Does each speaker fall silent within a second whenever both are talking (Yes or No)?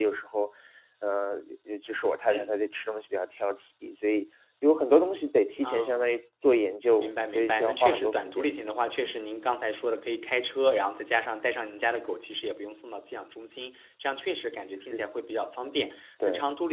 No